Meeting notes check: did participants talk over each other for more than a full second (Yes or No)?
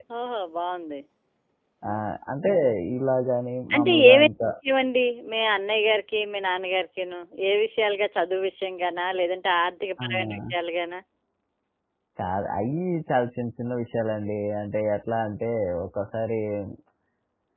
No